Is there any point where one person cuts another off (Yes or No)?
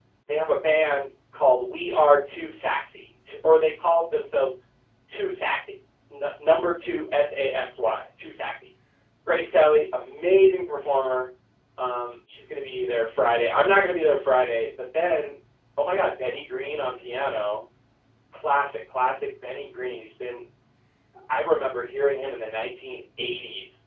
No